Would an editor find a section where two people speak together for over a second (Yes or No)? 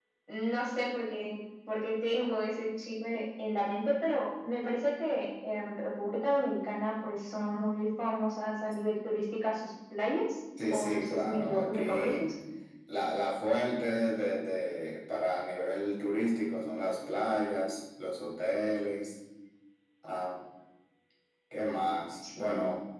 Yes